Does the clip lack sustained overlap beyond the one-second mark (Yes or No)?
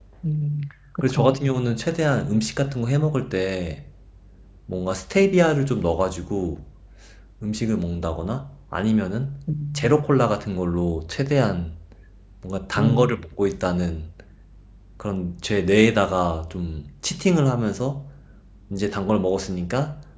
Yes